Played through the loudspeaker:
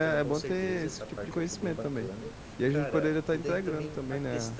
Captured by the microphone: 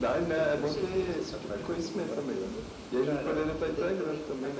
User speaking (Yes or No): No